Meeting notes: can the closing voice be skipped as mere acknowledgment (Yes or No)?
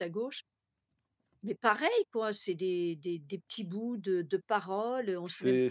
No